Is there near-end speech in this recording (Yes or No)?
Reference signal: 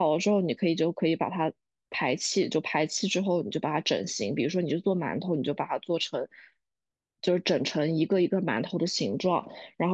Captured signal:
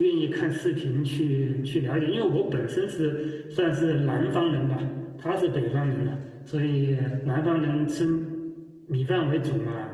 Yes